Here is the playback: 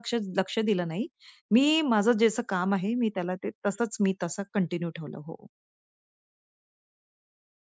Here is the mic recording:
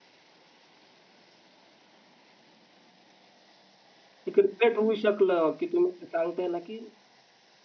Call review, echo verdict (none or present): none